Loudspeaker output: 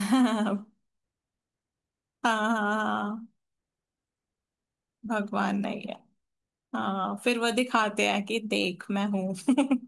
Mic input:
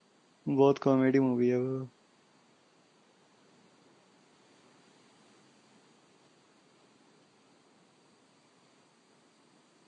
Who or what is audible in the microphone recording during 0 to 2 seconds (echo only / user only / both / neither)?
user only